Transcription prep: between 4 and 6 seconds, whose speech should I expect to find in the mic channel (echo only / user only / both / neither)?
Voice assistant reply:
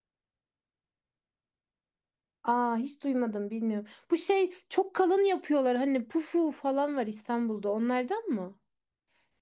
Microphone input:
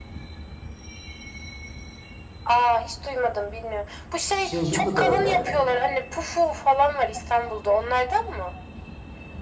both